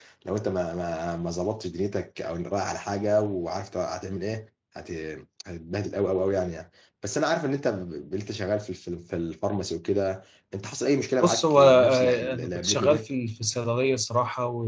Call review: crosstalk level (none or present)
present